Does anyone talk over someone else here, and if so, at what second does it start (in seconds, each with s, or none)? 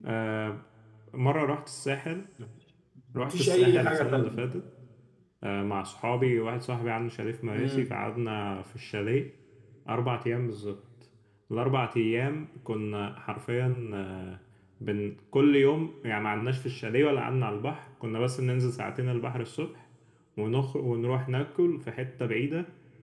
3.2 s